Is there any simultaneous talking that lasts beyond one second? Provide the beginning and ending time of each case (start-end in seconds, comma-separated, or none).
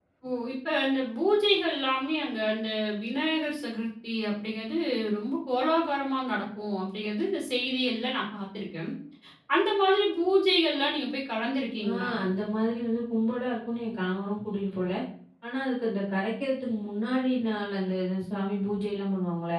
none